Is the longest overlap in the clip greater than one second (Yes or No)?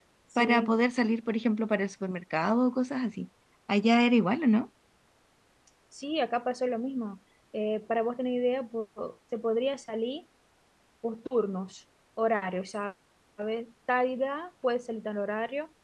No